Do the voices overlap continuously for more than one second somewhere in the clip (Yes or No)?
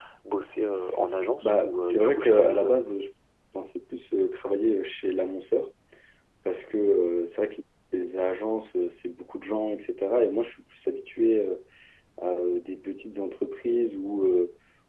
Yes